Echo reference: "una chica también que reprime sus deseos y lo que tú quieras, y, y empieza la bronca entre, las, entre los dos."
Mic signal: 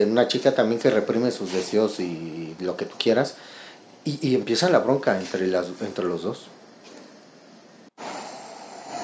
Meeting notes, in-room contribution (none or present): none